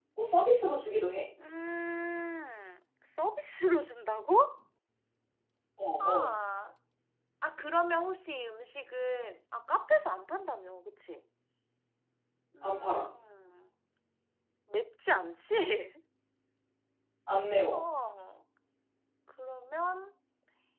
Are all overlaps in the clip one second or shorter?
Yes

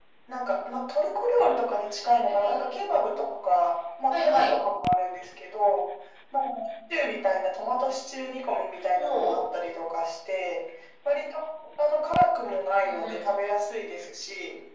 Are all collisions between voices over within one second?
Yes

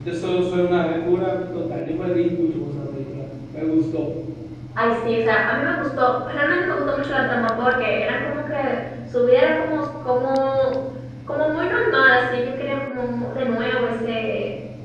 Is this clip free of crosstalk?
Yes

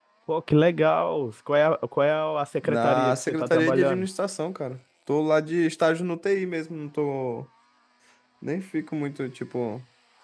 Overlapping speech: Yes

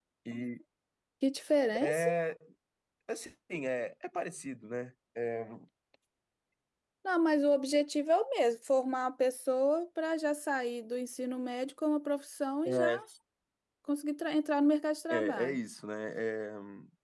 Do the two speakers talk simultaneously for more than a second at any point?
No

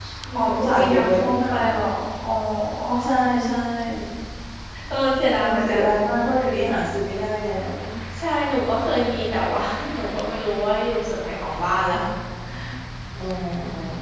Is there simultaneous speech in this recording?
Yes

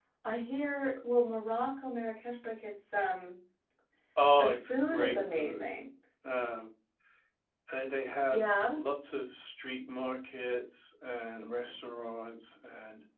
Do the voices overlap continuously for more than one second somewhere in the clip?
Yes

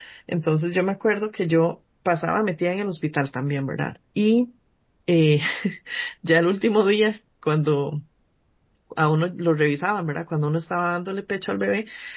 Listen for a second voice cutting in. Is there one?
No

